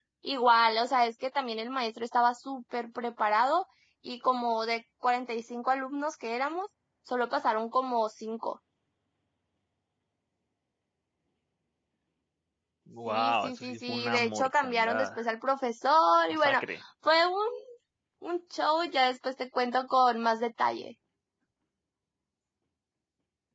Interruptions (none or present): present